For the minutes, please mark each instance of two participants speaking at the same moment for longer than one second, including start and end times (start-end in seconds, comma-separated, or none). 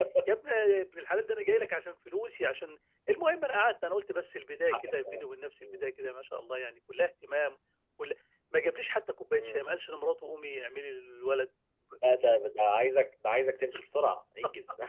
none